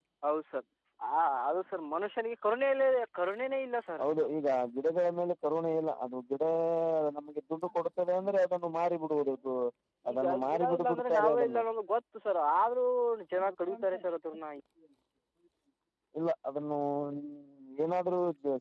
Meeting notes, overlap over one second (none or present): present